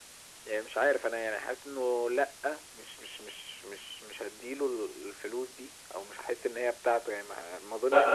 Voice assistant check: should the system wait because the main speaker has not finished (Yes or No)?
No